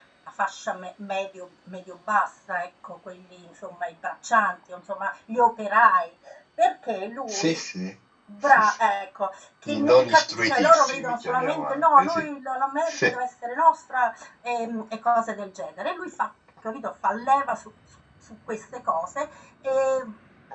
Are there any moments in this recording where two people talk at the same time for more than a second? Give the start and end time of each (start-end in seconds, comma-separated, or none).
9.7-12.2